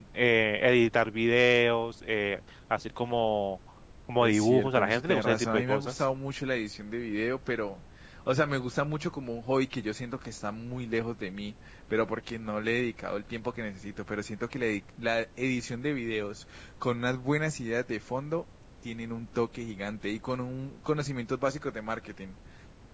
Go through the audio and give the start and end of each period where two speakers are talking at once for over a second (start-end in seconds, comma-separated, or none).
4.2-6.0